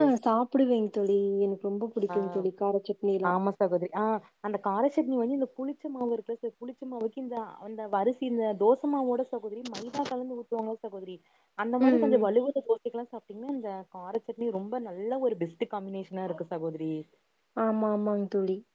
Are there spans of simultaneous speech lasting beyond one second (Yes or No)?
No